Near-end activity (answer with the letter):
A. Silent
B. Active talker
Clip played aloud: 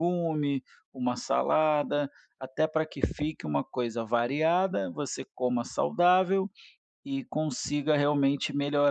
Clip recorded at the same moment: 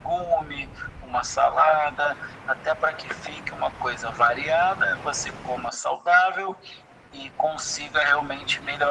A